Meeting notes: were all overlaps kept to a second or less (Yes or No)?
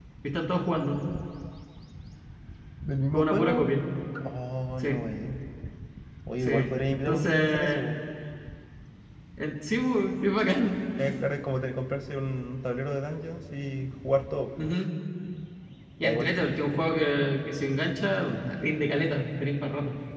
No